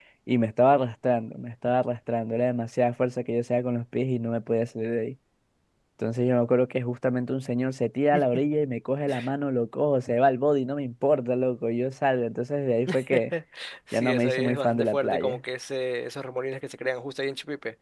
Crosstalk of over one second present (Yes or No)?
Yes